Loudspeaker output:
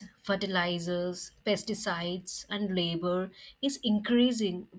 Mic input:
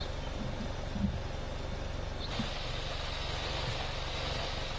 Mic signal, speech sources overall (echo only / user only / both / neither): neither